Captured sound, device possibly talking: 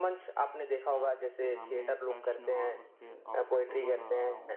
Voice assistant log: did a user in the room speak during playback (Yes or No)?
Yes